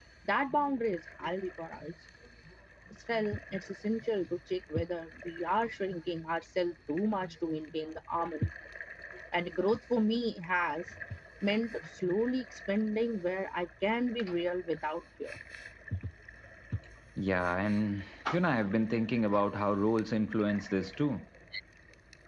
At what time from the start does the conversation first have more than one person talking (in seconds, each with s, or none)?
none